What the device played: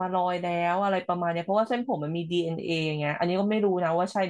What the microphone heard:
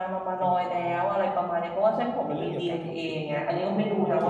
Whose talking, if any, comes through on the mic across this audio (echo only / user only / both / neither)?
both